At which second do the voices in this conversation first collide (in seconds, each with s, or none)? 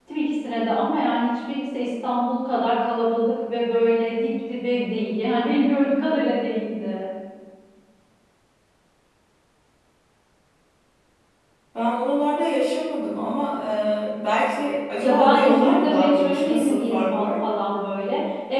15.0 s